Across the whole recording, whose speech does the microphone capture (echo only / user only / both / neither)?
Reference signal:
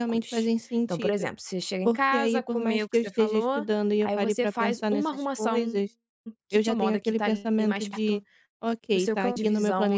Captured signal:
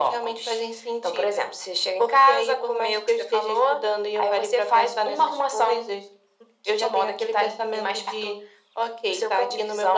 echo only